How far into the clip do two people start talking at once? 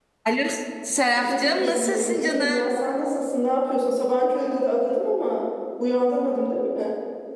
1 s

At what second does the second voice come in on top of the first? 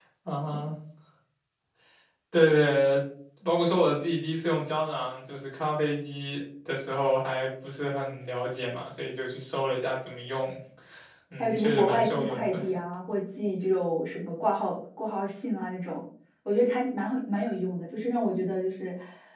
11 s

